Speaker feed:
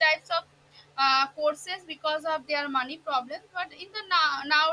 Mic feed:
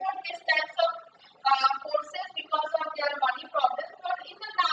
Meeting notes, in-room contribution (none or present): none